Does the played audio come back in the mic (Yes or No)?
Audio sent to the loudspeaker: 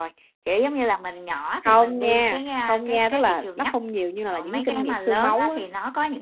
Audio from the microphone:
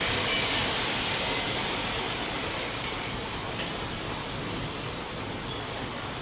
No